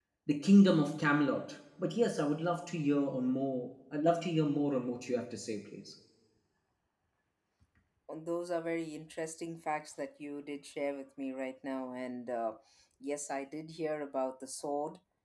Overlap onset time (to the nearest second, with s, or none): none